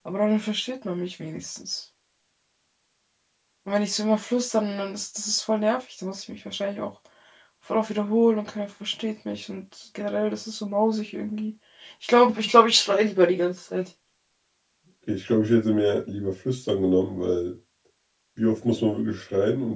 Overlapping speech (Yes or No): No